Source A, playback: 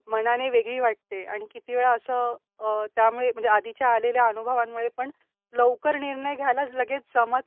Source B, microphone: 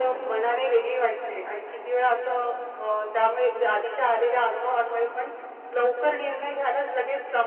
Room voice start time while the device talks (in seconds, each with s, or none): none